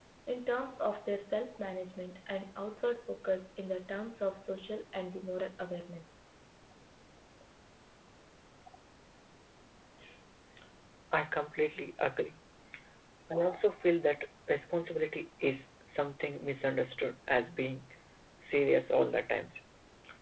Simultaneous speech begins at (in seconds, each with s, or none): none